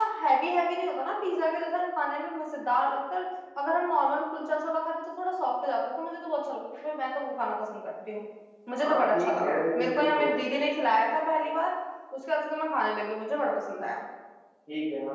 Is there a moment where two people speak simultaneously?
Yes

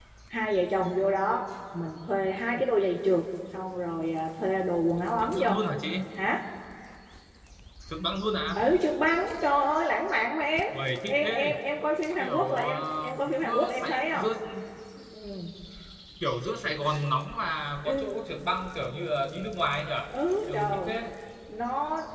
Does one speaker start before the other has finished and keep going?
Yes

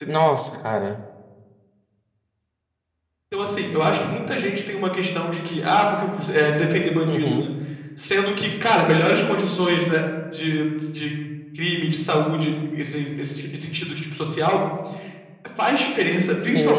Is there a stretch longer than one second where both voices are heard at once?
No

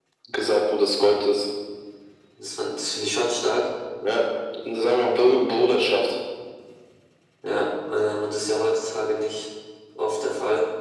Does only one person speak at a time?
Yes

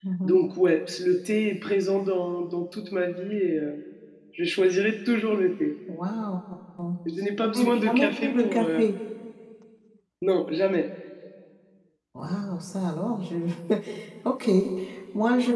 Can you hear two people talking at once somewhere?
Yes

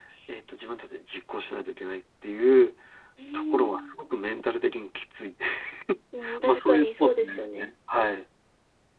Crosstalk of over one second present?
Yes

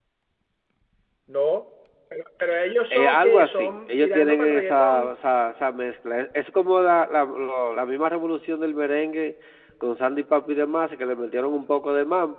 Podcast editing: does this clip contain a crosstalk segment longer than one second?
Yes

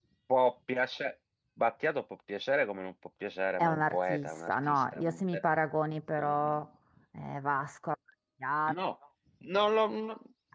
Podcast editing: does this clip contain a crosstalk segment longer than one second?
Yes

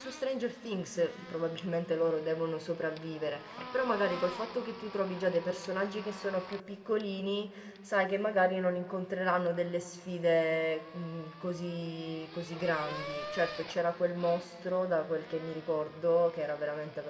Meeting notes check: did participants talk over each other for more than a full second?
No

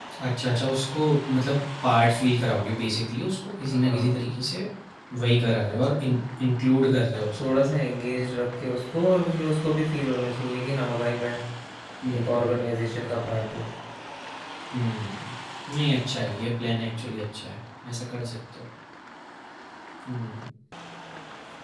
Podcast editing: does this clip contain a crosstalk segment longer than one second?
No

